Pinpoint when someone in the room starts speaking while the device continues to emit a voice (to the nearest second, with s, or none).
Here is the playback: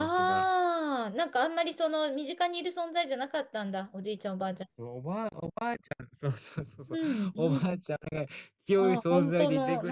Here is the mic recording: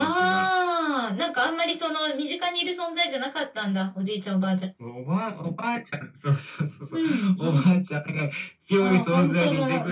none